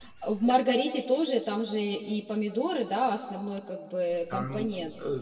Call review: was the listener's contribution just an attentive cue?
No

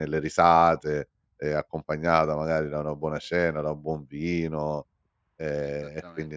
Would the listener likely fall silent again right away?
No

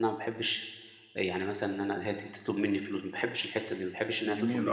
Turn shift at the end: Yes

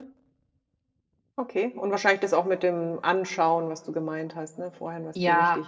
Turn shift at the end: Yes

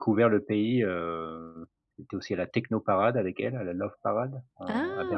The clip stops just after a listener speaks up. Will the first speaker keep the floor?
No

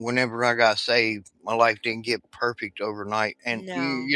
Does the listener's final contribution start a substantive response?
No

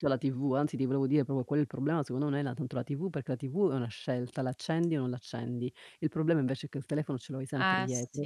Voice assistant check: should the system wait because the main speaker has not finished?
Yes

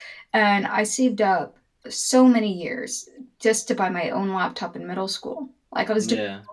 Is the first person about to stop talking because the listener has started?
No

